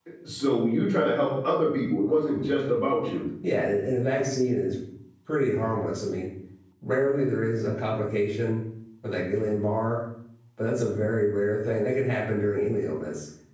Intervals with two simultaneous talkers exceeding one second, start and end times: none

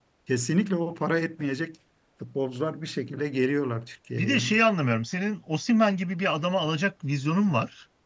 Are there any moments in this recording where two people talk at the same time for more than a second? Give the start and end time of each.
none

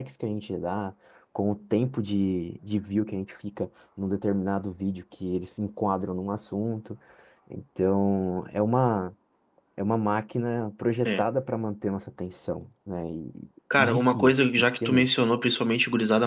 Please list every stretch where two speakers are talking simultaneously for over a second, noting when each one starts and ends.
13.8-15.1

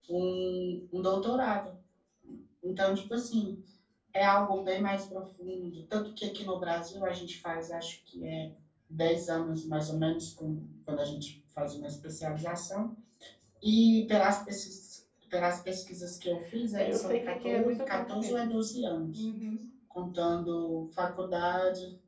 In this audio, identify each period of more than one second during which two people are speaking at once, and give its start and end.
16.8-18.5

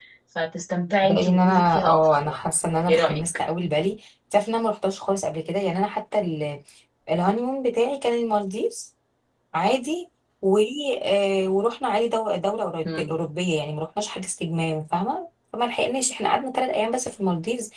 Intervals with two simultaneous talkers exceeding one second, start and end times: 1.0-2.5

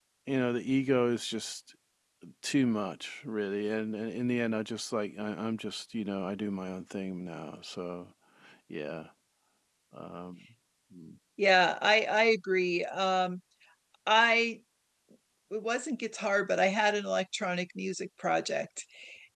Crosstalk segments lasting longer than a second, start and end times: none

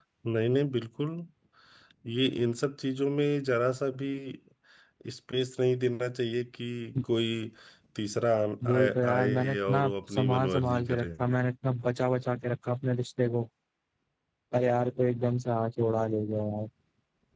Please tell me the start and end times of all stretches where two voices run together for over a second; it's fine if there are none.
8.7-11.1

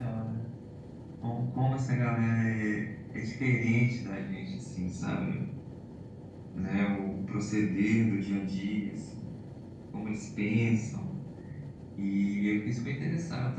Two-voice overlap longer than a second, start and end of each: none

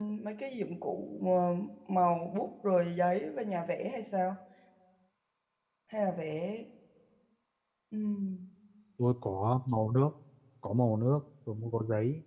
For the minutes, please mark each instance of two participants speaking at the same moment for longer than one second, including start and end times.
none

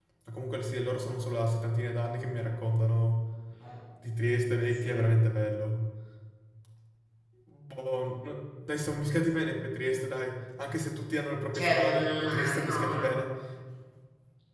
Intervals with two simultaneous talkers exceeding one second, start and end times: 11.5-13.2

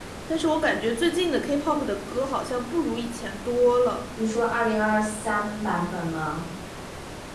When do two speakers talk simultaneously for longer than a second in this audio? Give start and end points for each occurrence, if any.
none

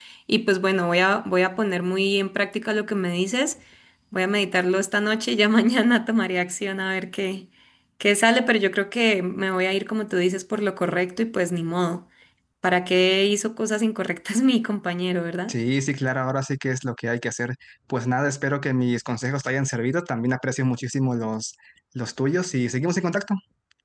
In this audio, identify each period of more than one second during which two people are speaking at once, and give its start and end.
none

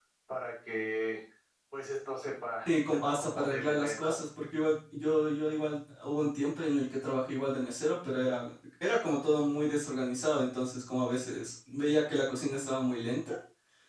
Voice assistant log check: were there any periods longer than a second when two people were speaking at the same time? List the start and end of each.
2.6-4.2

